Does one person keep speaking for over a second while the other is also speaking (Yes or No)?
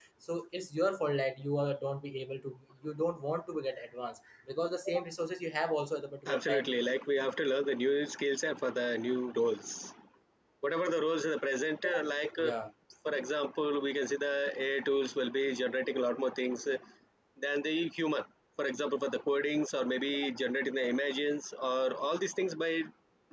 No